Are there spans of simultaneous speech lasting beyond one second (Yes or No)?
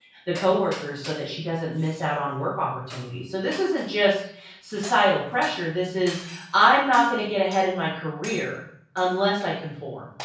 No